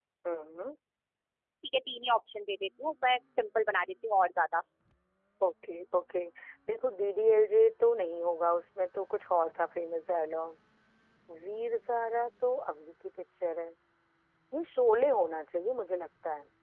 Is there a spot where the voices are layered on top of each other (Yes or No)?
No